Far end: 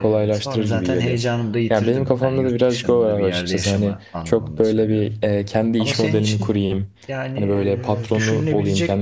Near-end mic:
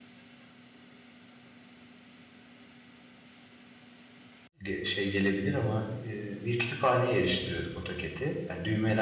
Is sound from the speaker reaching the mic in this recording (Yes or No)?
No